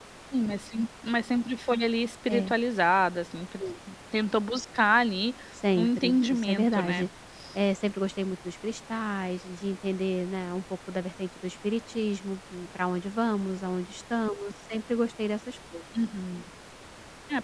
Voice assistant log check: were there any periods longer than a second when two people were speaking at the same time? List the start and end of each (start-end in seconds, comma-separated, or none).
5.8-7.0